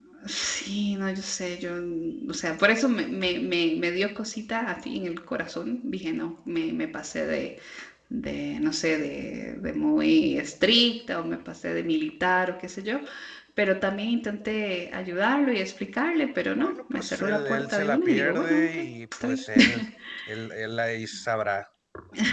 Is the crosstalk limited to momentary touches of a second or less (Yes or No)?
No